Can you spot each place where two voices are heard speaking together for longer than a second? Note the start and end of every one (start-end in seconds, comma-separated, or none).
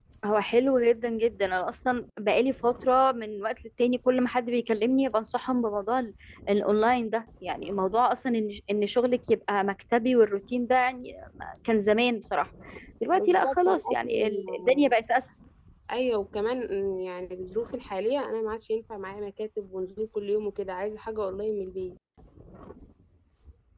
13.2-14.9